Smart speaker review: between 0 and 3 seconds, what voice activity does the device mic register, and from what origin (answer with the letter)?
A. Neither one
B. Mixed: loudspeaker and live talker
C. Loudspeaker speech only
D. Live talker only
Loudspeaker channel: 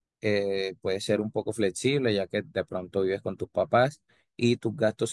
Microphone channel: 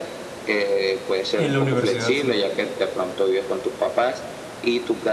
B